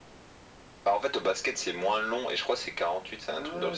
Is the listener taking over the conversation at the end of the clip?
Yes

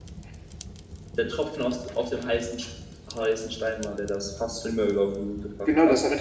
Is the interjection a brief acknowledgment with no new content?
No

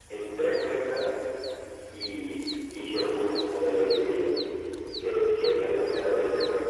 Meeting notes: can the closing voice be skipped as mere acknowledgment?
Yes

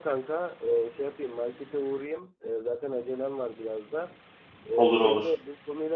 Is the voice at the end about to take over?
No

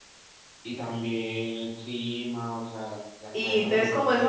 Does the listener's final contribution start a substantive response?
Yes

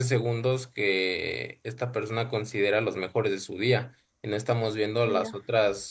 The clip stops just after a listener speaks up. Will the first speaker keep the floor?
Yes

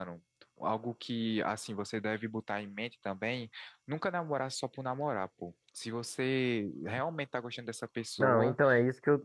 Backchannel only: No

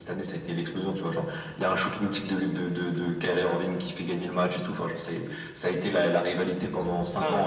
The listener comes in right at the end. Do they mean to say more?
Yes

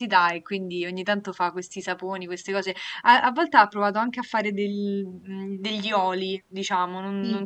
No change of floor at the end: Yes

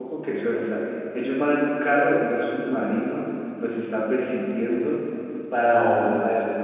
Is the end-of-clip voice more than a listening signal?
No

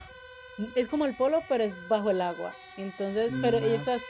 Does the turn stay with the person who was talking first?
Yes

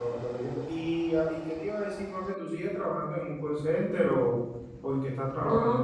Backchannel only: No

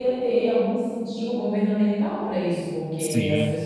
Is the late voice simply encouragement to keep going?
Yes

